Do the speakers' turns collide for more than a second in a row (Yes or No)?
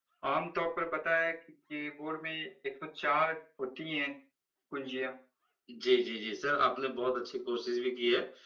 No